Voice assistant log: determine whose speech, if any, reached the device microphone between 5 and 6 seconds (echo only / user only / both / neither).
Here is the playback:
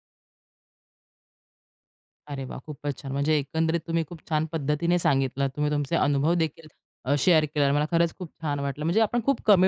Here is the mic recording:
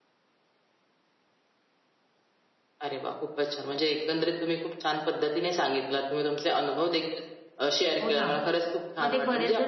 echo only